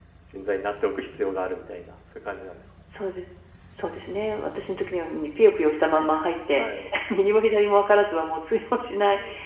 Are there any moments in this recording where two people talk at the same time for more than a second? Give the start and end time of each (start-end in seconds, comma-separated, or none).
none